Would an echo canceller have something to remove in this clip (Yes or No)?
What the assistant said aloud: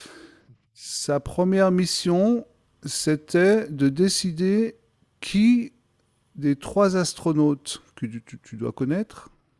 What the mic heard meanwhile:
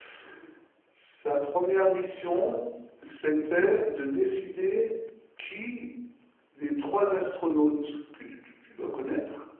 Yes